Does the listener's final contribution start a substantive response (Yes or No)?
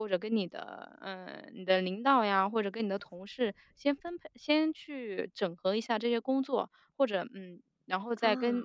No